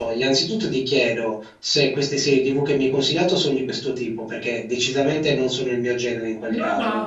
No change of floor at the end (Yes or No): No